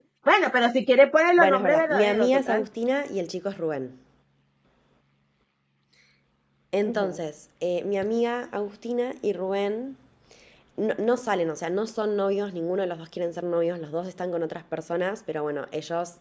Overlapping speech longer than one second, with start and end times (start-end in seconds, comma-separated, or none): 1.4-2.7